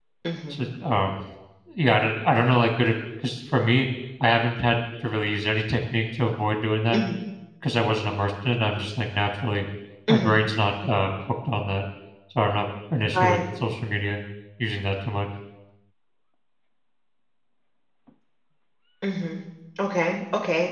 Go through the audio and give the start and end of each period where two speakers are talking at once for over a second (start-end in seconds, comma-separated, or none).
none